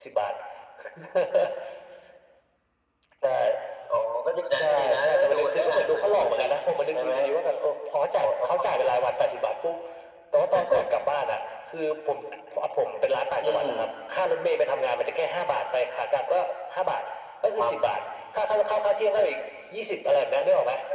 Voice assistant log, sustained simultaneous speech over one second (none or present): present